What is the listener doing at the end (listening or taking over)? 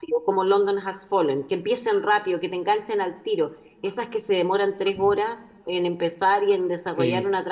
listening